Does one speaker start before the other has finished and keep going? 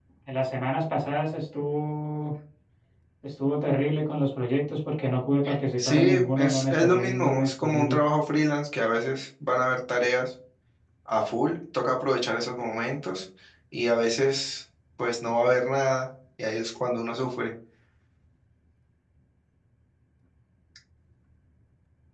Yes, from 5.8 s

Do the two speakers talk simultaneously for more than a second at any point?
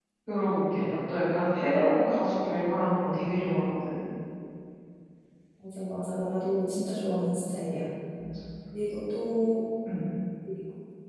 No

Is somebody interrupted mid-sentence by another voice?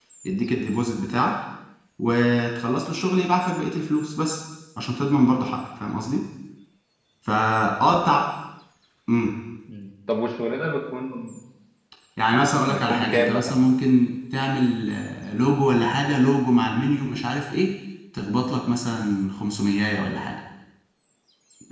Yes, from 12.3 s

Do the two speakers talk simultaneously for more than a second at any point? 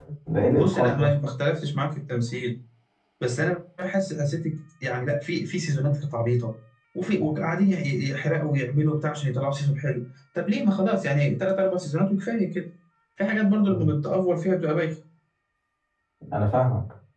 No

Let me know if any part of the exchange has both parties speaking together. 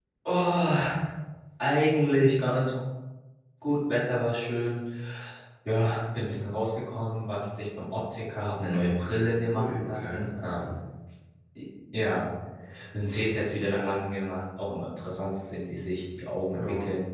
Yes, from 9.5 s

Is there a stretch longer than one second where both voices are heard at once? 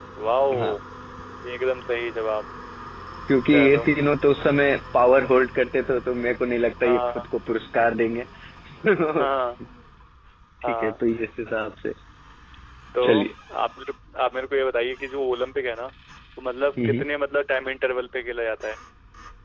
No

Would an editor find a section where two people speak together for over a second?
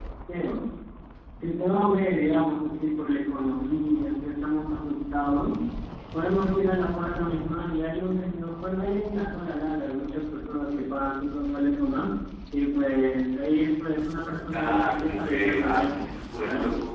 Yes, from 14.5 s

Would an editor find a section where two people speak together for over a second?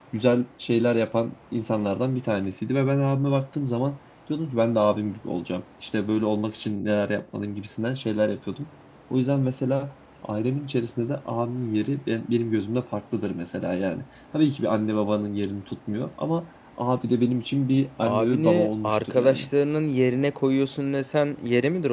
Yes, from 18.0 s

